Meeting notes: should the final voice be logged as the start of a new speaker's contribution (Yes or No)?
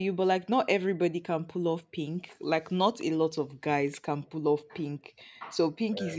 No